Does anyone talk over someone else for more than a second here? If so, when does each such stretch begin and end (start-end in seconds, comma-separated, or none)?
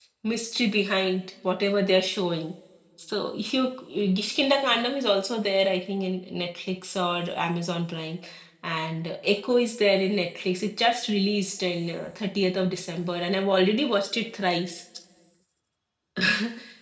none